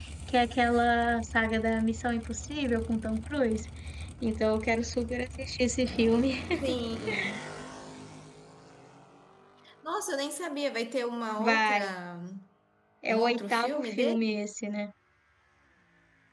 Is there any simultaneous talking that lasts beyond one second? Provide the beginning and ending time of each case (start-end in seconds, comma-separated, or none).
13.1-14.4